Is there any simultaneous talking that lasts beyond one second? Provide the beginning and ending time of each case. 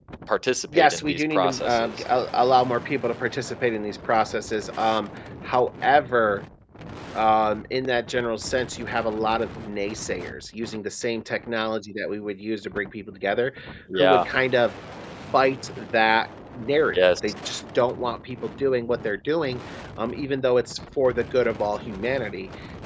0.7-2.0

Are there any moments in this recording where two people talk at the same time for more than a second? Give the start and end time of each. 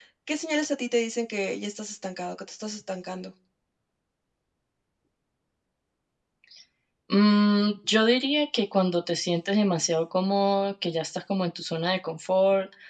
none

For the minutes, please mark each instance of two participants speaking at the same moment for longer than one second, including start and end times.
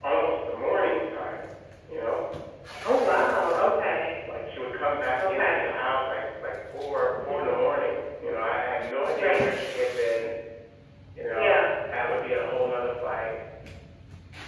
none

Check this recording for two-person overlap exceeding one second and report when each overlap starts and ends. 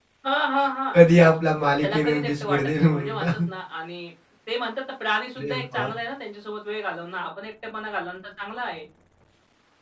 1.8-3.3

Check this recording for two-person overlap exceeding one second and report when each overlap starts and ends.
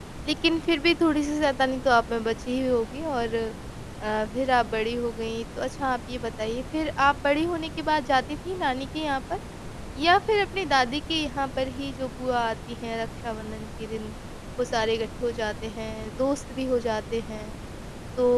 none

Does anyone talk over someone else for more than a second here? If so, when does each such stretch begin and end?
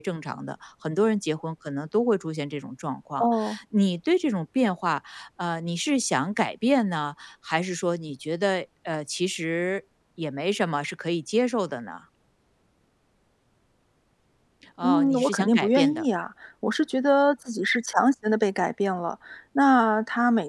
14.8-16.1

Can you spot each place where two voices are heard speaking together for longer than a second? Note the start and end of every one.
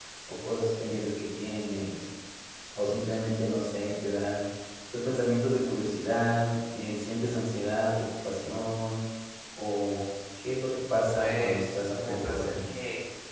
11.1-12.5

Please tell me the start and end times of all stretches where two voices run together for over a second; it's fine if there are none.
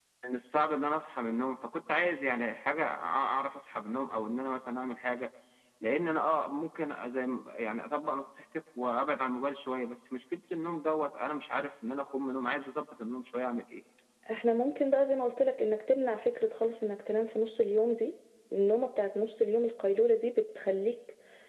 none

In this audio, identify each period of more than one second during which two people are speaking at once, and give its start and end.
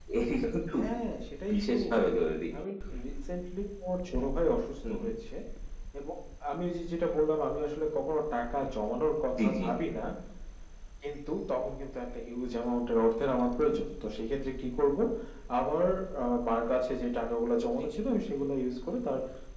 none

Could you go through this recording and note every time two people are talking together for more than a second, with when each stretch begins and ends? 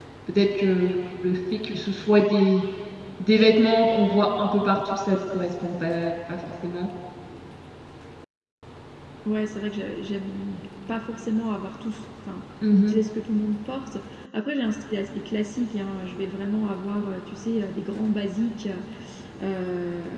none

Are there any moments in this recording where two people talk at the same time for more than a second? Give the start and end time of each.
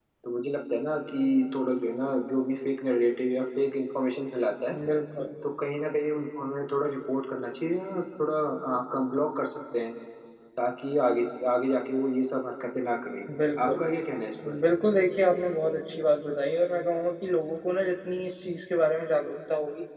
none

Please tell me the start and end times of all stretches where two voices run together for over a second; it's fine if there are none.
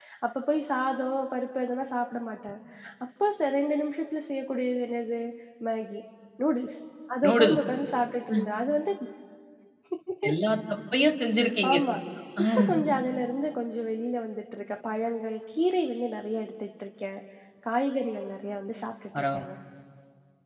none

